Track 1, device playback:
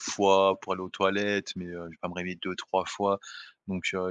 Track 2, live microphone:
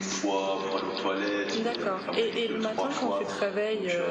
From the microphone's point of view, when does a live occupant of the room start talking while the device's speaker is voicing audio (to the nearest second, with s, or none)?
2 s